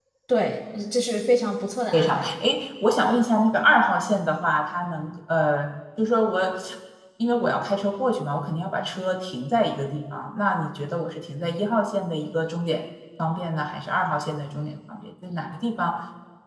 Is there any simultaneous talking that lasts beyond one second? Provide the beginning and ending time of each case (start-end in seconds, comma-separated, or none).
none